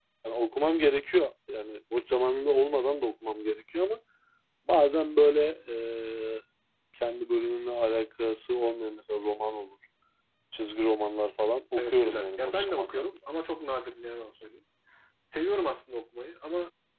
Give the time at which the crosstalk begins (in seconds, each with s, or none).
11.8 s